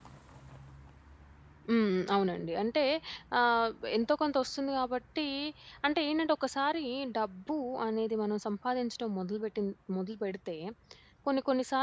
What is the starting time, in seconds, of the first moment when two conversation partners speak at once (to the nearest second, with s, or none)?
none